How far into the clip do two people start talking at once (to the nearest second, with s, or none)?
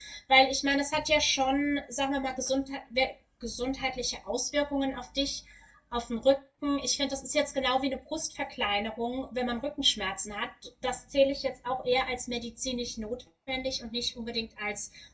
none